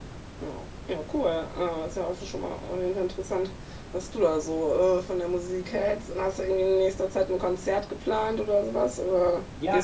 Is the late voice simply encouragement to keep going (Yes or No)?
No